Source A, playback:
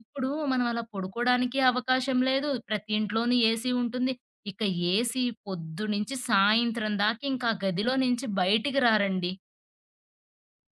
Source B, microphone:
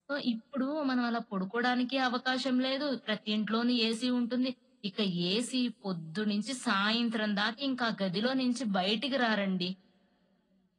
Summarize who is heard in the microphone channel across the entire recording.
echo only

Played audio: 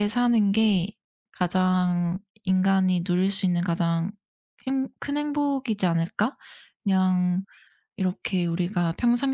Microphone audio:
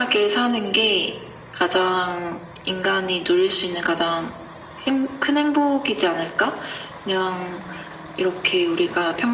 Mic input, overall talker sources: echo only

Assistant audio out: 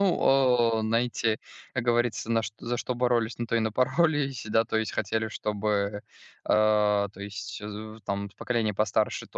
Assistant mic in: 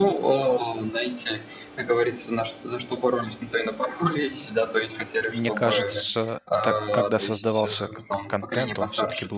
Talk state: both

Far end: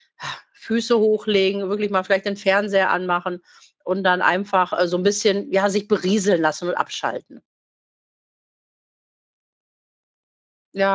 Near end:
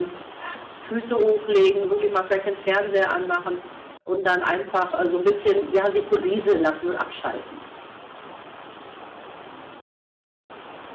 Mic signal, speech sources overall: echo only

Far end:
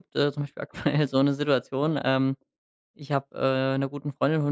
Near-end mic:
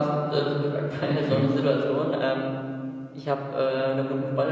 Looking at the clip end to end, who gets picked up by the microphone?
both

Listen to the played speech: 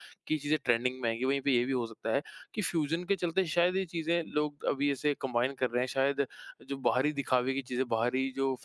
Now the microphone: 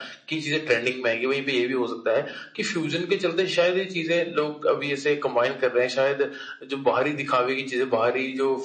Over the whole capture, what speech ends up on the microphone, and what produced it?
echo only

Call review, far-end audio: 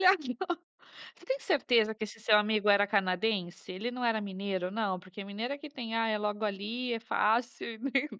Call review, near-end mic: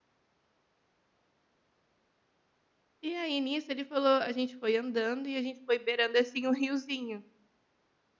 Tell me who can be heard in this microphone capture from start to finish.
user only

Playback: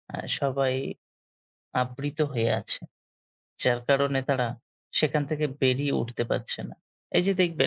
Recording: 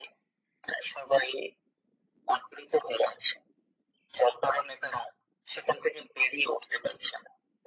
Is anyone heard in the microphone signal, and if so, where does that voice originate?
echo only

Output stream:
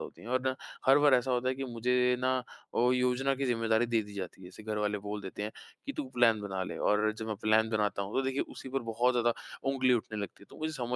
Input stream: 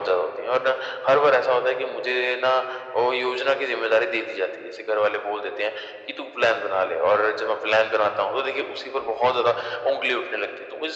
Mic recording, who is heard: echo only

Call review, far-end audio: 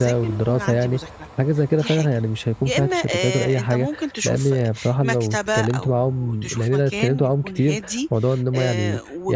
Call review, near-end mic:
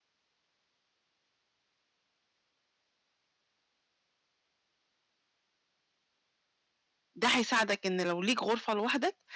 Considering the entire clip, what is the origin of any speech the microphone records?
user only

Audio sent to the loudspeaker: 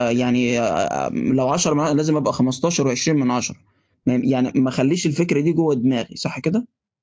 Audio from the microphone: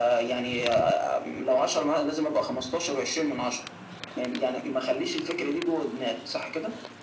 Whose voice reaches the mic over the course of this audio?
echo only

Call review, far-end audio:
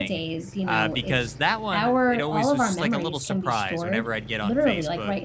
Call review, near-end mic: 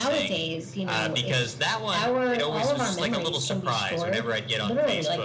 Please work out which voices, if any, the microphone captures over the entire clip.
echo only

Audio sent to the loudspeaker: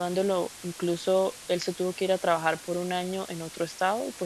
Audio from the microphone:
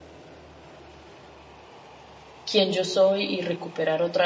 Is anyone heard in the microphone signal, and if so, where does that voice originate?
user only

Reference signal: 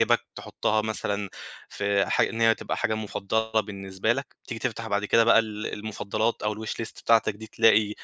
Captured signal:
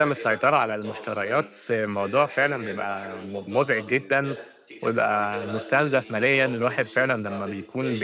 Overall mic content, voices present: both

